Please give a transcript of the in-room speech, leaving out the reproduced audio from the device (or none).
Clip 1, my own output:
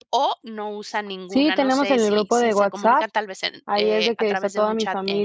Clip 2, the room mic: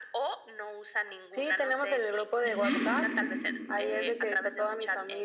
Ujú.